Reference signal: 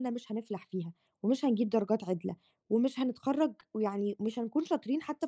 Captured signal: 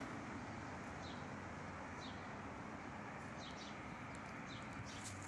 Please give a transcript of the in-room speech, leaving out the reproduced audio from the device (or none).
none